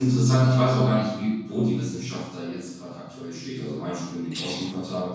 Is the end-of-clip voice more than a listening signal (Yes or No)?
No